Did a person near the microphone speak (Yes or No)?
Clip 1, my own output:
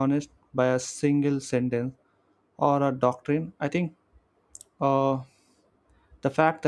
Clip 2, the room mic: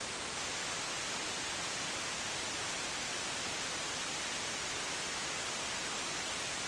No